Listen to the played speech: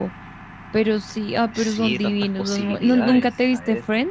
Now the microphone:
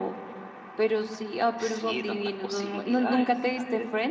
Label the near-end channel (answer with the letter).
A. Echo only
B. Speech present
A